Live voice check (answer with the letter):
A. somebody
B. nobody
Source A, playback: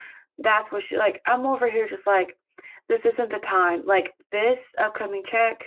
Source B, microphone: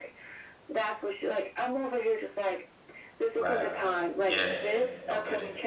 A